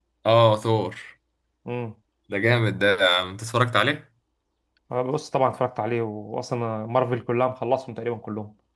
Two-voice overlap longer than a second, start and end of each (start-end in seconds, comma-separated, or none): none